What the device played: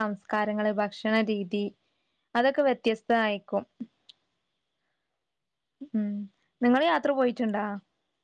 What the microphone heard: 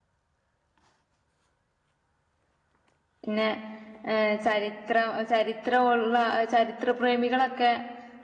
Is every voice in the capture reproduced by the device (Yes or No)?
No